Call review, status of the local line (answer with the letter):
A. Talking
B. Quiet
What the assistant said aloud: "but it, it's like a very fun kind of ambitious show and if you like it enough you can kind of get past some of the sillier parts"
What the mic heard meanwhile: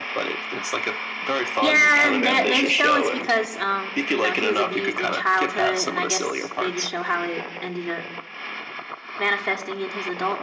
A